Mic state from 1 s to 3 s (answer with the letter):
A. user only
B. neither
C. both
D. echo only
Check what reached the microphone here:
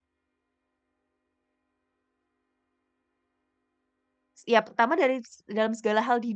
B